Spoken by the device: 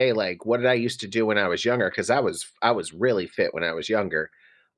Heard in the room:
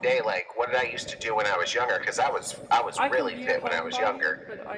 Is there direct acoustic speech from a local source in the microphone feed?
Yes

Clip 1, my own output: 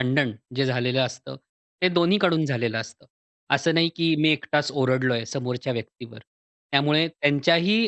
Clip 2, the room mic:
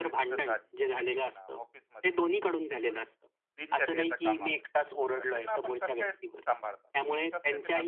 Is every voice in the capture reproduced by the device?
No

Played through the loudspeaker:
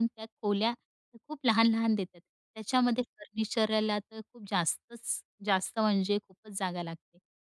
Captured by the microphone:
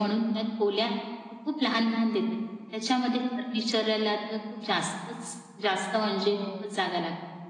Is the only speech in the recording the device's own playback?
No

